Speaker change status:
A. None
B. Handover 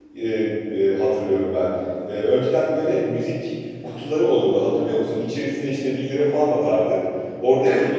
A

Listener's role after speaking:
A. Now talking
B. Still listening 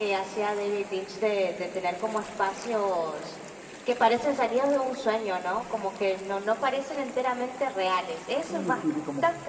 A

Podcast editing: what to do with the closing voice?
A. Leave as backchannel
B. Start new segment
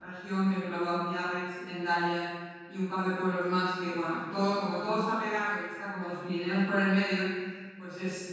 A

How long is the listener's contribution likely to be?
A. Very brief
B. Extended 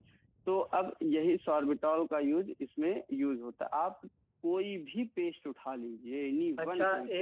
B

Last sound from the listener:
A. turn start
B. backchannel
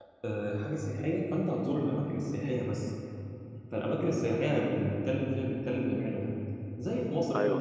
B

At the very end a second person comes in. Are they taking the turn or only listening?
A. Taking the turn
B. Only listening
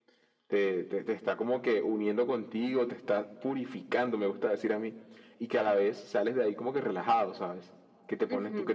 B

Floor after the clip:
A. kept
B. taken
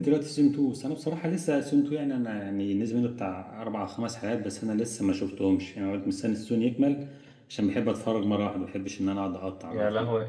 B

